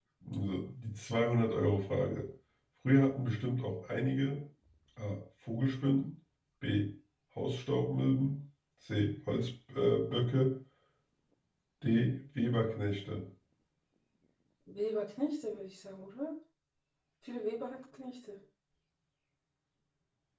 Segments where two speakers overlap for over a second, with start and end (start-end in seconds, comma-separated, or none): none